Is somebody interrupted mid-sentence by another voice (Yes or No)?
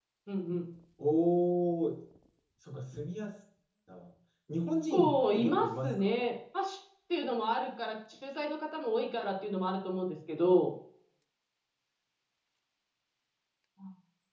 Yes